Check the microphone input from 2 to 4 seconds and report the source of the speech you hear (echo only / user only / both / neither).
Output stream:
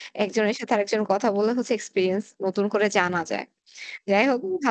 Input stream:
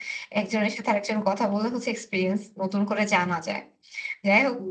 echo only